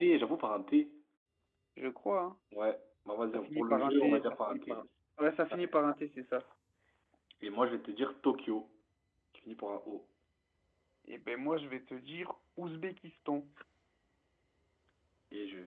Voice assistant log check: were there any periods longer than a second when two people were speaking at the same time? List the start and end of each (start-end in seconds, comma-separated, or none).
3.3-4.8